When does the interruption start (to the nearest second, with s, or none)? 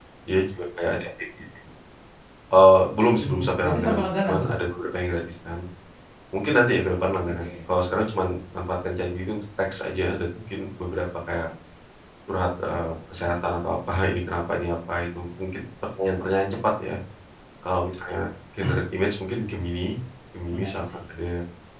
3 s